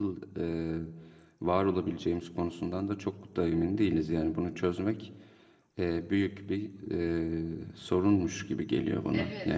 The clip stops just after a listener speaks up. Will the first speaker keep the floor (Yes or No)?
No